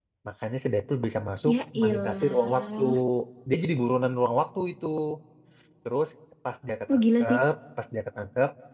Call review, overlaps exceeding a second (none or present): present